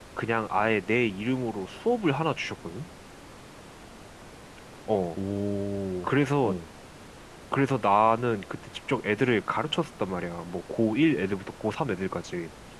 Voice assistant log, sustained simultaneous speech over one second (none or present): none